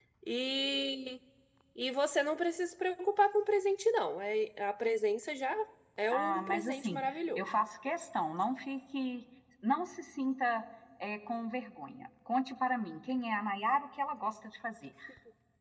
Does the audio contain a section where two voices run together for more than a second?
Yes, from 6.1 s

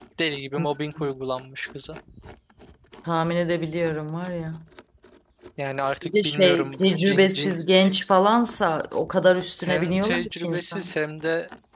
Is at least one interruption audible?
Yes, from 6.0 s

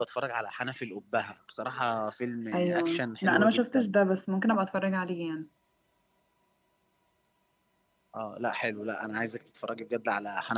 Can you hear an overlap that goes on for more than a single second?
Yes, from 2.5 s

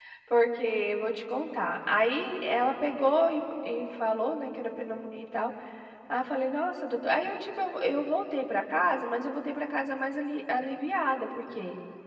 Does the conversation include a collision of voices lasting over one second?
No

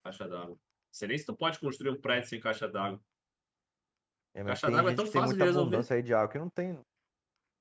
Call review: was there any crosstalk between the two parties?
Yes, from 4.5 s

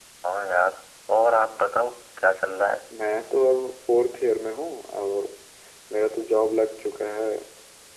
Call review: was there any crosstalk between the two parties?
No

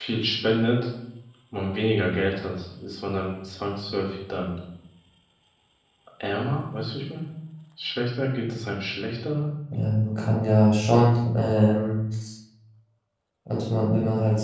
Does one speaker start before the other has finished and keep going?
No

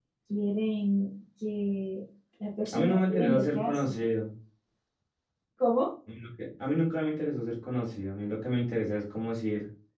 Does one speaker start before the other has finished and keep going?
Yes, from 2.6 s

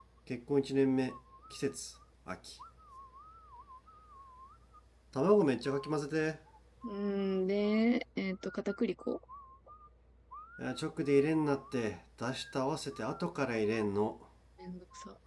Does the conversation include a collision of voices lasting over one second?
No

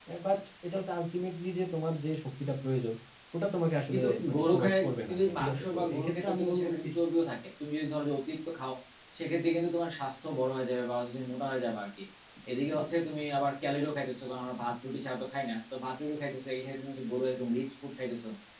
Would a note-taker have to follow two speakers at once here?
Yes, from 3.9 s

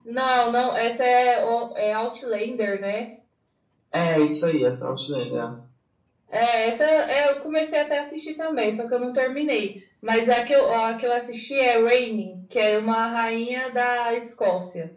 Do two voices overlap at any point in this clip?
No

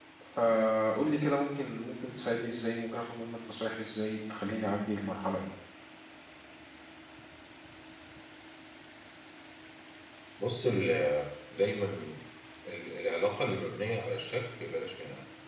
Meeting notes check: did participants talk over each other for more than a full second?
No

